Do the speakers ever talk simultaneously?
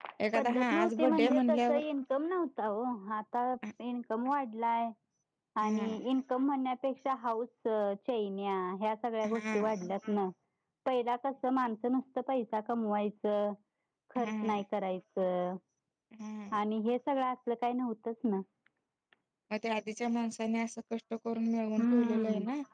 Yes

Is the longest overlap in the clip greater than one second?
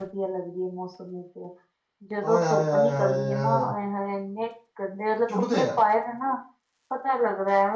Yes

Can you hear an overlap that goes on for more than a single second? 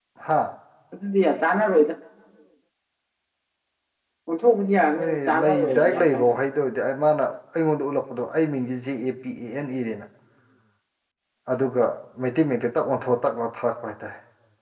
Yes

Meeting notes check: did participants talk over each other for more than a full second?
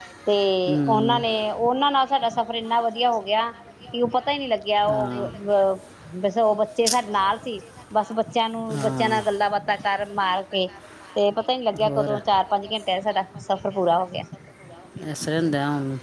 No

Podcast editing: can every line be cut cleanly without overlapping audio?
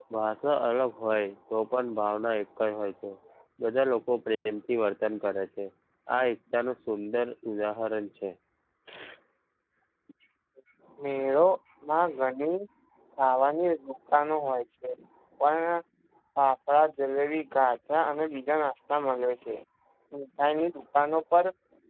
Yes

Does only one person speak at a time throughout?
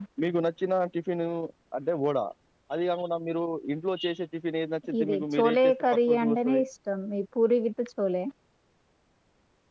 No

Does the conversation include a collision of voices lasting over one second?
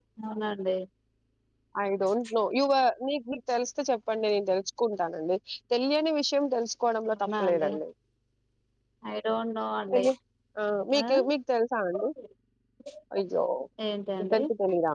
No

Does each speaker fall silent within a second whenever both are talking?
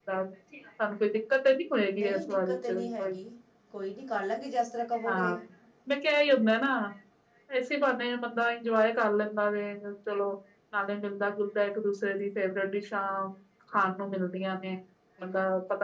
No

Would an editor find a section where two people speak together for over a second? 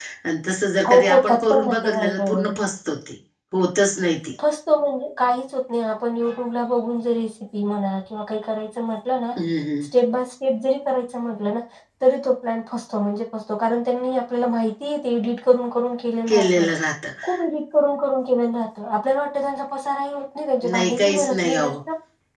Yes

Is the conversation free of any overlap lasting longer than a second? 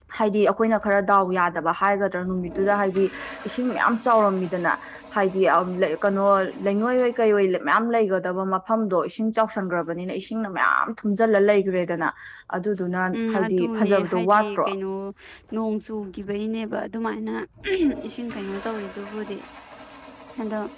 No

